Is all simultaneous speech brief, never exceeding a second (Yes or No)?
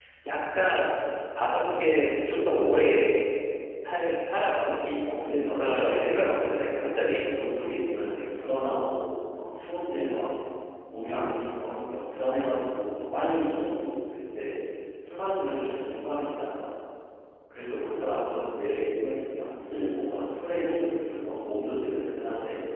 No